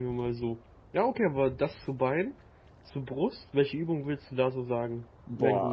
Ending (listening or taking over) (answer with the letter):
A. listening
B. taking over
B